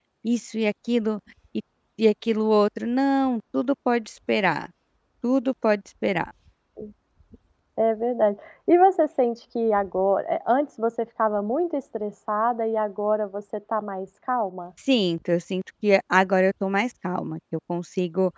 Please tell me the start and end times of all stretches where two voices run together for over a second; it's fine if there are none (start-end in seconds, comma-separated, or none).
none